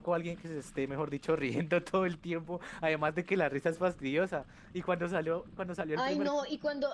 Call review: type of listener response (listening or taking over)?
taking over